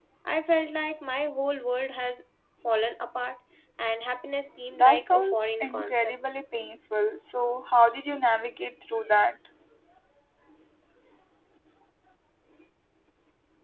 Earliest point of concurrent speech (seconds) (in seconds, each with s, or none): 4.7 s